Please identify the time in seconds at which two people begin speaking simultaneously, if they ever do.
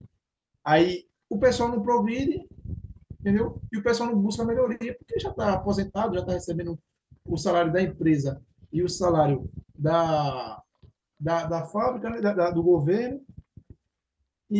none

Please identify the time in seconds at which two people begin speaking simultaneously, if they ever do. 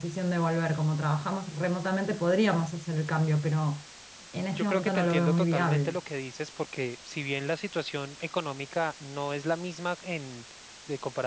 5 s

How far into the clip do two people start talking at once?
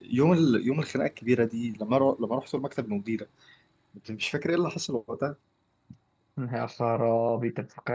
none

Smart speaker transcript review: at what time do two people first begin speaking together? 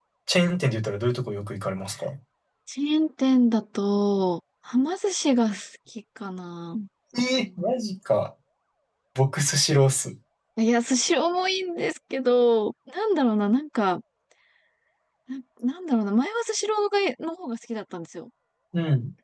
none

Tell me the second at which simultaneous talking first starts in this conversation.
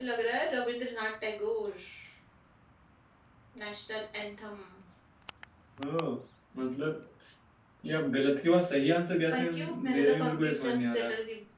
9 s

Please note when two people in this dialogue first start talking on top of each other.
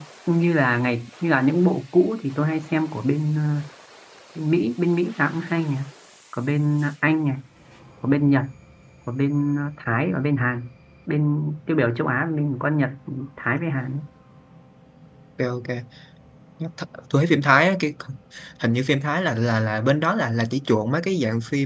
none

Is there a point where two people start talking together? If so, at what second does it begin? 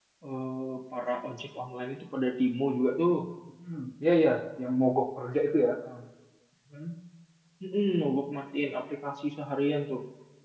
none

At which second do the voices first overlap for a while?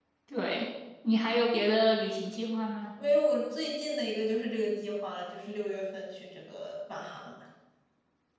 none

